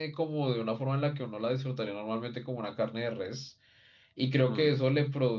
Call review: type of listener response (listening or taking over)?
listening